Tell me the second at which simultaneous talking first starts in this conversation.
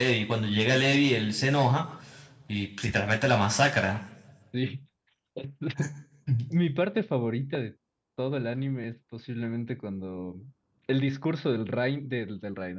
none

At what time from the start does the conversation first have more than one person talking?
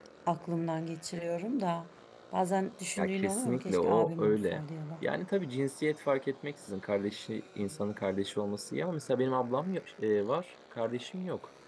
3.0 s

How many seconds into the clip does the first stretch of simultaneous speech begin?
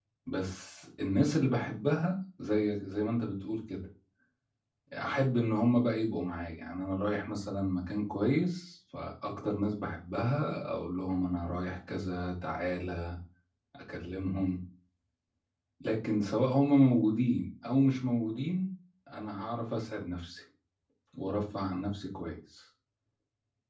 none

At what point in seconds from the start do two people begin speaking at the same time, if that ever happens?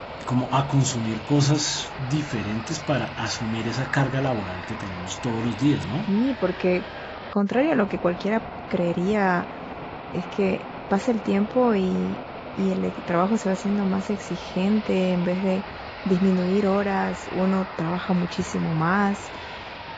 none

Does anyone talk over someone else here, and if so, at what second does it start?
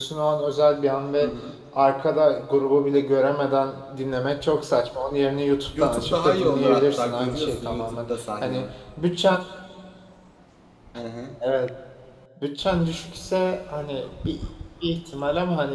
5.7 s

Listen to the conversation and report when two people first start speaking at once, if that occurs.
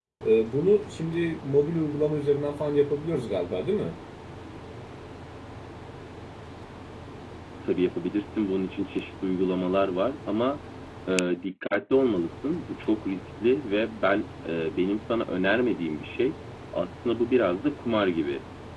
none

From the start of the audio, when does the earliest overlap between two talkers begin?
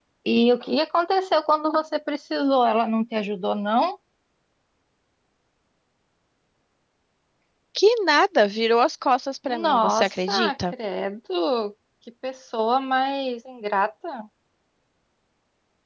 9.5 s

